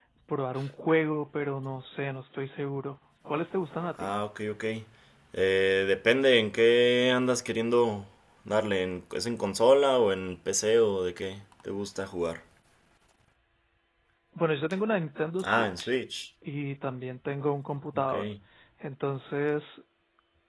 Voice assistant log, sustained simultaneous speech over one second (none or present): none